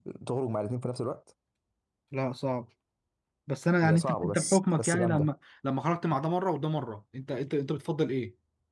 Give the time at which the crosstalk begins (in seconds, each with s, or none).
3.8 s